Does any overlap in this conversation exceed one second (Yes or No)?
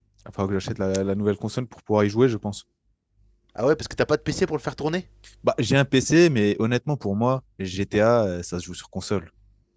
No